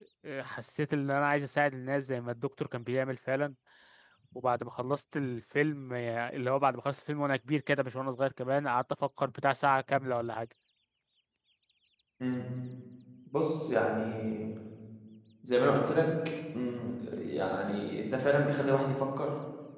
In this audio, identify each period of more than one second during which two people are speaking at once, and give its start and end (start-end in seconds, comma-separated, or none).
none